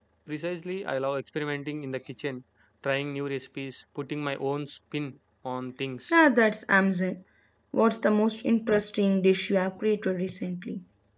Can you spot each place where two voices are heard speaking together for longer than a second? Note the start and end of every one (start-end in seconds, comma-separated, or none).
none